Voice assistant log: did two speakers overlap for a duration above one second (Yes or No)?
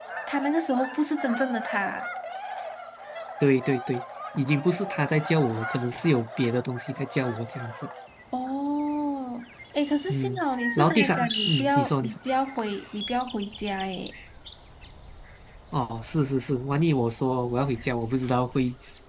Yes